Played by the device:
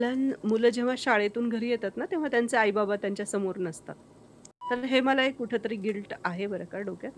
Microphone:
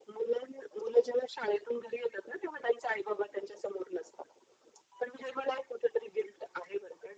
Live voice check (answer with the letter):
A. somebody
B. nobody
B